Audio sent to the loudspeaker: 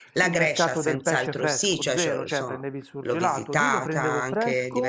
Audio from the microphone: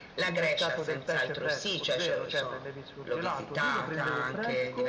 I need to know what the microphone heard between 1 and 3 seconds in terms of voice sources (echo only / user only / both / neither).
echo only